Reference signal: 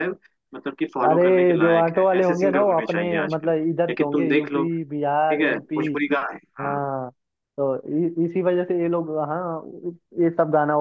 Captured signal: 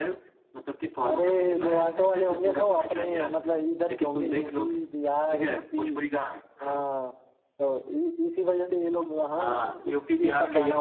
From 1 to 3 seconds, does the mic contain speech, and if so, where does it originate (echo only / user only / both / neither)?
echo only